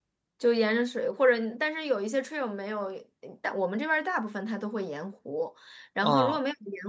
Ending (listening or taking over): listening